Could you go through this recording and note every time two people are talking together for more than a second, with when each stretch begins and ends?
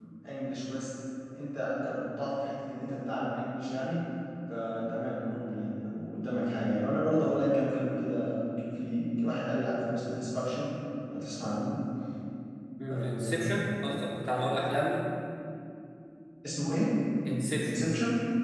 12.9-14.2

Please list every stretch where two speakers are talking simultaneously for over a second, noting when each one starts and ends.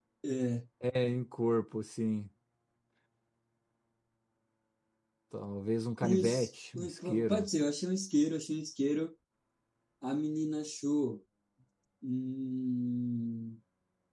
6.0-7.5

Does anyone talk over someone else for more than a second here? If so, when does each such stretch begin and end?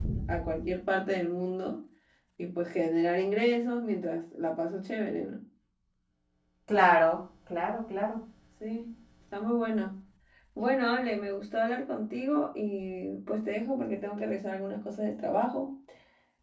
none

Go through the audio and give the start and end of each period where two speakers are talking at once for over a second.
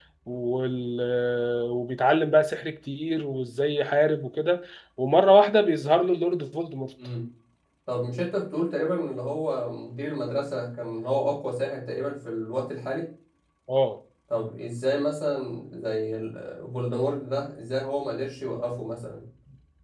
none

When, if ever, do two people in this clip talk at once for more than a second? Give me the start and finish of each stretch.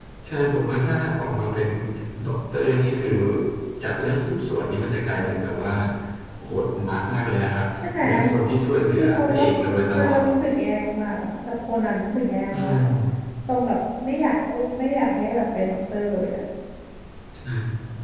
9.0-10.2

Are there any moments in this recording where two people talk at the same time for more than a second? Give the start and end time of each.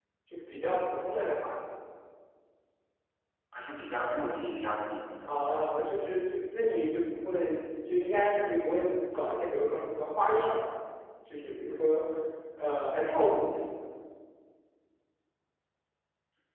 none

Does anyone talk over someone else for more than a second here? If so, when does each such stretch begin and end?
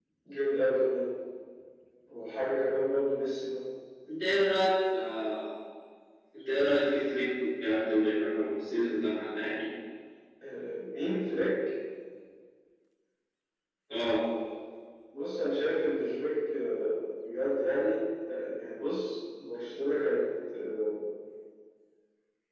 none

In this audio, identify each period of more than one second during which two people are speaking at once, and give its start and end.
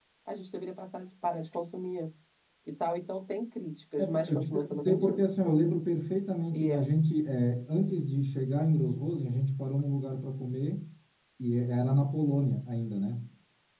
4.0-5.2

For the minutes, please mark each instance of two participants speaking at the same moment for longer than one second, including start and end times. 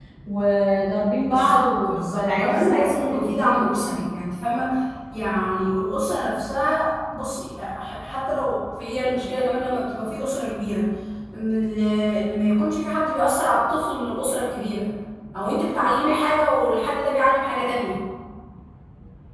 1.2-3.6

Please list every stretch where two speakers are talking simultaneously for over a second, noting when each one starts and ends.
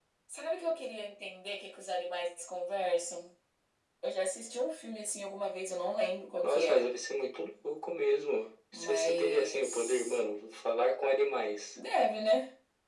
8.7-10.2

